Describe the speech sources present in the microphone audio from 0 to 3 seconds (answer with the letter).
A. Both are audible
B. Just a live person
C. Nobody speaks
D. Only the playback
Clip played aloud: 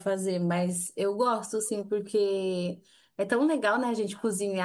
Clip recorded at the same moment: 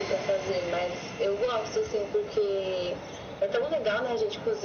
D